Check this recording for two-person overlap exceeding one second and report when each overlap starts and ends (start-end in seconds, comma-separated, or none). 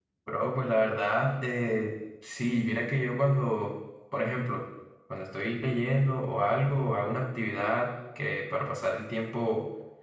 none